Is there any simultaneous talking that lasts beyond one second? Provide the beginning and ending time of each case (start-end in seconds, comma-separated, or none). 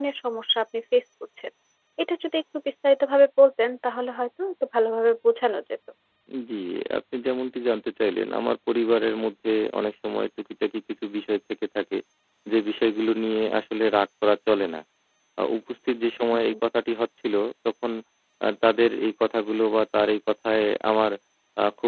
none